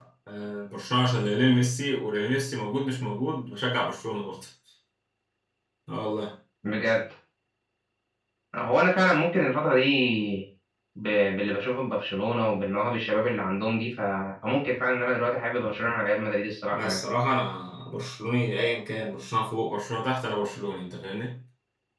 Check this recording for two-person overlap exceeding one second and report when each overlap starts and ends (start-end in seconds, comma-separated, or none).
none